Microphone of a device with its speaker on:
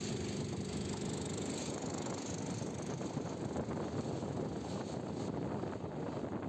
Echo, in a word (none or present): none